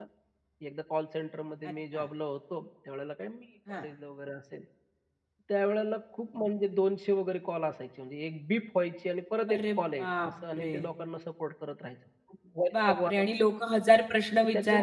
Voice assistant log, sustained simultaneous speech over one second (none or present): present